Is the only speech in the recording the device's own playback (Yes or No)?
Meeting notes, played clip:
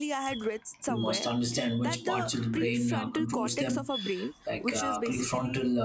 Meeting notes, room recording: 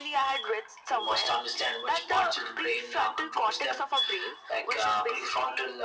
Yes